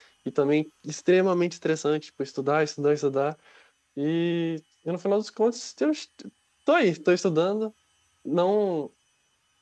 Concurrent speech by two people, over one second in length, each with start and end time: none

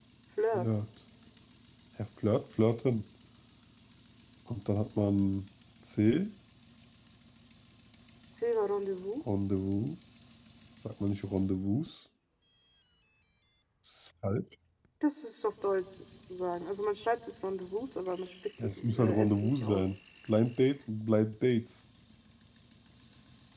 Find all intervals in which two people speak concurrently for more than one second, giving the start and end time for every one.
18.6-19.9

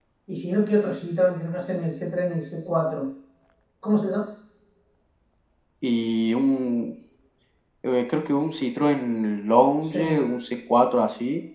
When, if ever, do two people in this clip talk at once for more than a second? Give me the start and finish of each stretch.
none

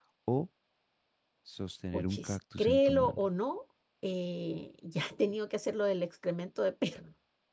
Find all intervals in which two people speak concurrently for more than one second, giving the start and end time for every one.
1.9-3.3

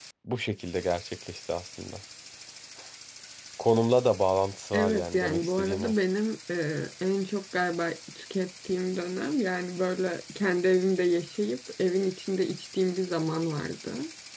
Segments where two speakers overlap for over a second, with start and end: 4.7-5.9

